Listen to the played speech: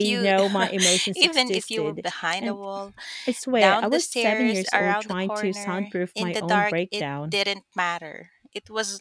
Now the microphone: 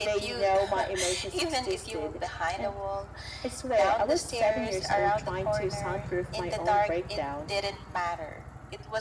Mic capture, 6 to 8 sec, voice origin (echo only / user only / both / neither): echo only